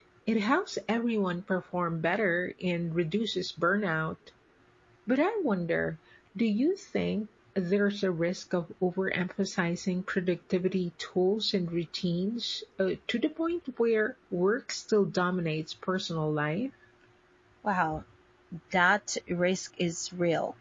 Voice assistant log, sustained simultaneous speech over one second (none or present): none